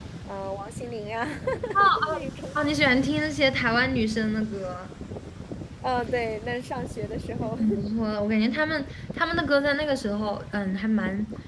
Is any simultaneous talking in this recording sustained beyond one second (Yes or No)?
No